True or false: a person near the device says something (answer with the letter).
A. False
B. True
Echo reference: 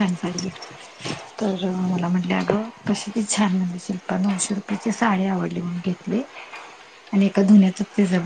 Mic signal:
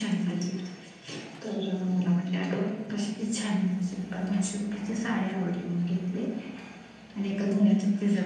A